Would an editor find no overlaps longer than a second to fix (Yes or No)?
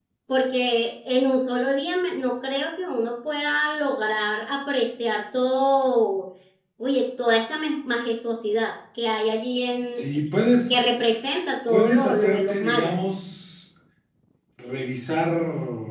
No